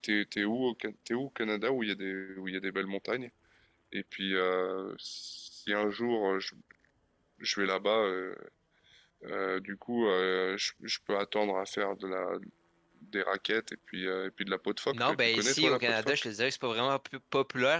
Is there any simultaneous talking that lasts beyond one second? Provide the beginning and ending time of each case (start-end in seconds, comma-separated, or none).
14.9-16.1